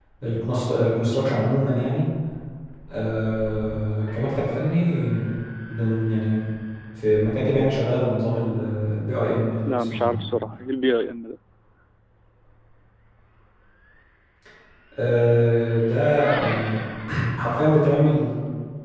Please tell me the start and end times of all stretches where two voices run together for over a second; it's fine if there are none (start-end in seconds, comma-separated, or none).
none